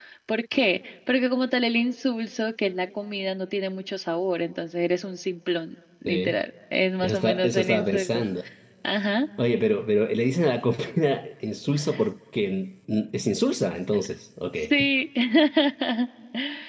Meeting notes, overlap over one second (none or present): present